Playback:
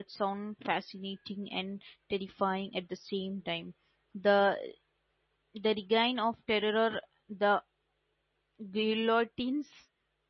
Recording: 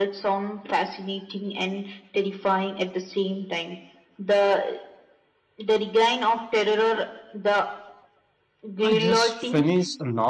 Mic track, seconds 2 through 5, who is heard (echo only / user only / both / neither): echo only